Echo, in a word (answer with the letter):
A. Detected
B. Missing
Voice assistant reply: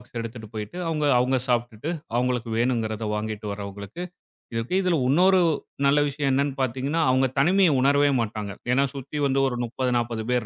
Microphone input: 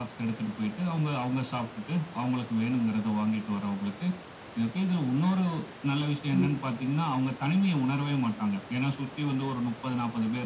A